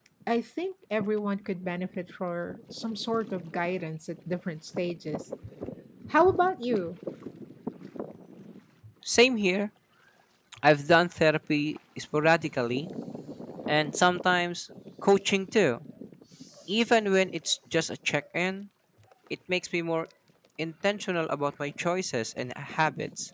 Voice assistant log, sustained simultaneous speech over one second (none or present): none